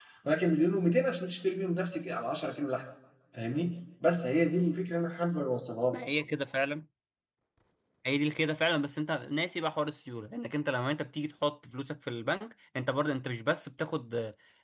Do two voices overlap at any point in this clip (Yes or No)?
No